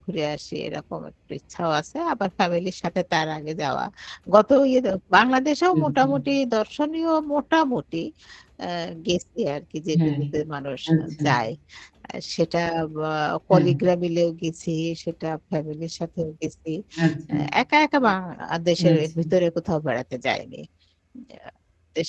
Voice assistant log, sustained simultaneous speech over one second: none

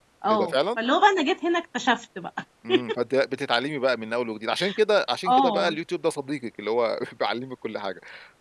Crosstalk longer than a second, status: none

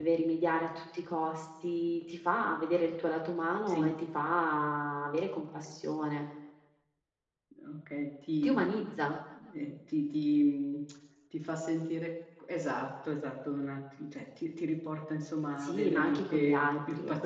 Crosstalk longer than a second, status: present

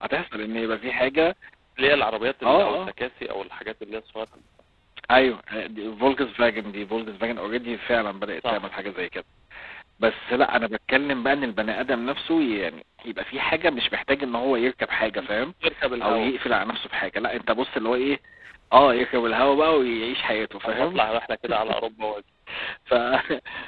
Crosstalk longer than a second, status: none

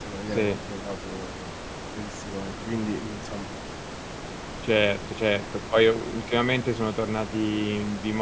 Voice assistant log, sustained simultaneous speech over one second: none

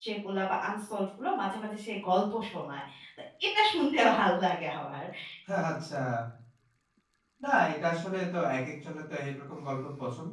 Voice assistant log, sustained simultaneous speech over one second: none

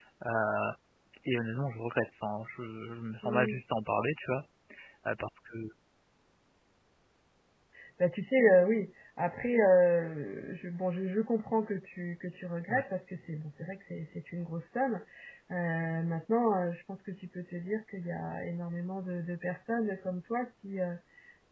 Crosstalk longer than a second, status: none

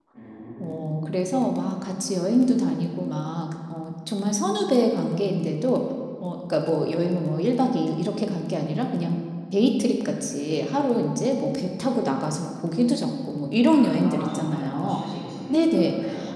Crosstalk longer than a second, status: present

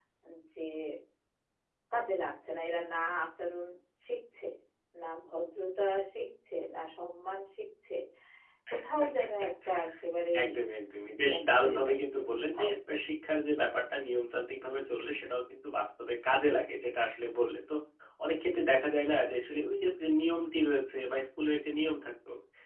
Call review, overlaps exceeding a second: present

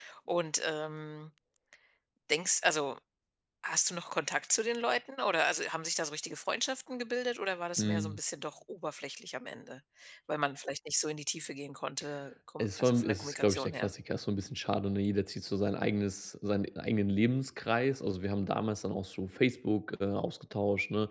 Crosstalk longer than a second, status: present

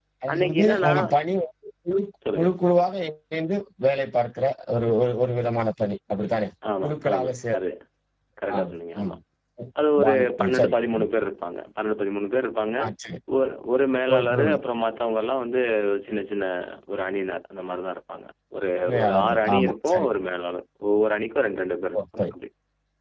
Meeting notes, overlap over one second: present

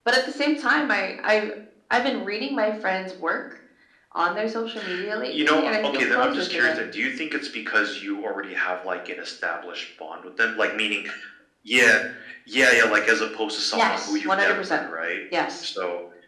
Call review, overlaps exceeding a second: present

